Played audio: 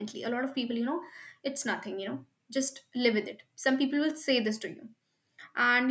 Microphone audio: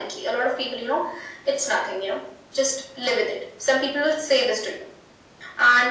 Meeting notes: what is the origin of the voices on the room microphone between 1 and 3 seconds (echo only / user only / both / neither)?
echo only